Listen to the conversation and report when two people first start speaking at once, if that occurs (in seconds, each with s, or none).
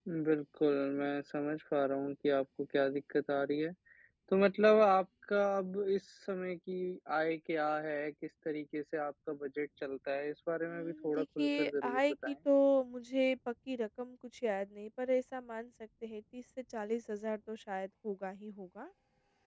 10.7 s